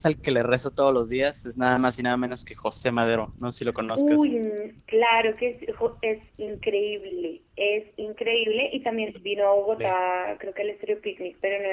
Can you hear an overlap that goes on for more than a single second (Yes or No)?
No